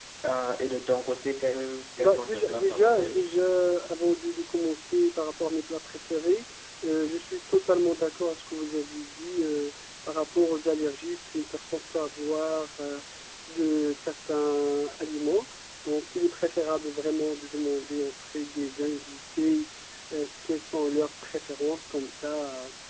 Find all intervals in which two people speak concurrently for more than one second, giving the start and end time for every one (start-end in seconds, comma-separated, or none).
2.0-3.2